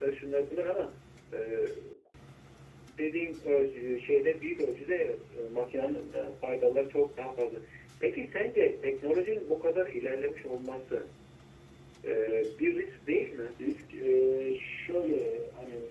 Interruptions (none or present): none